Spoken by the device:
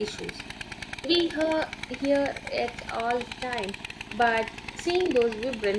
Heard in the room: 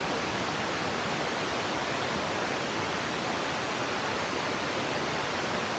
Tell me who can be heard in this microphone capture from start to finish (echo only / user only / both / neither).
neither